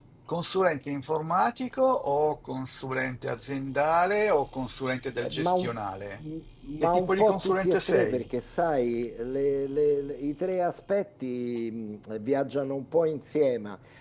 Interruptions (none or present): present